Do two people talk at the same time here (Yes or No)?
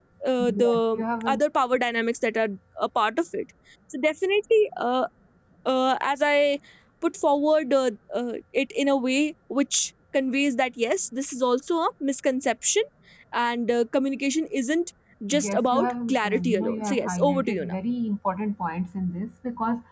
Yes